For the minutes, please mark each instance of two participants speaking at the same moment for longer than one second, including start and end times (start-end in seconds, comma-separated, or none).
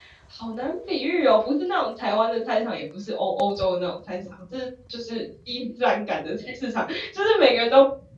none